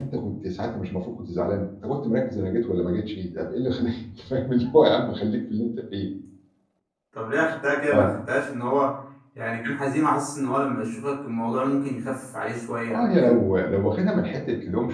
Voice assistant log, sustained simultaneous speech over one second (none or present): none